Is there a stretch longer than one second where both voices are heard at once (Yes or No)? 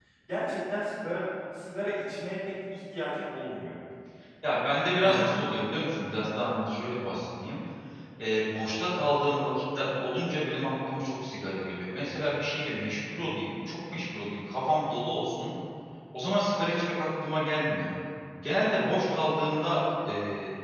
No